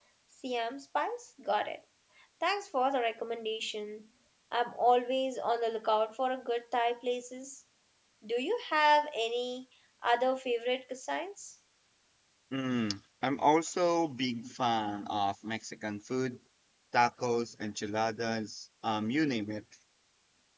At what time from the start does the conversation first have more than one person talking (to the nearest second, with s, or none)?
none